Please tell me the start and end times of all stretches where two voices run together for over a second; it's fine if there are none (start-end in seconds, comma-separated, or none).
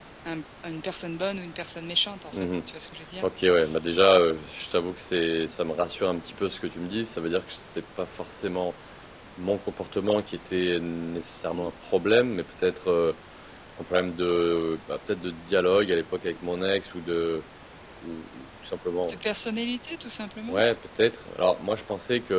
none